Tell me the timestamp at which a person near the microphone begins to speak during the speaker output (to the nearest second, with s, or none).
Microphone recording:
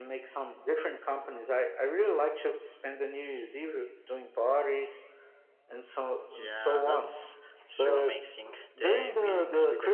6 s